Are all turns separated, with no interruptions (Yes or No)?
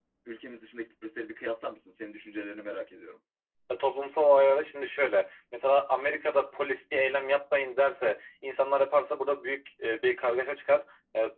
Yes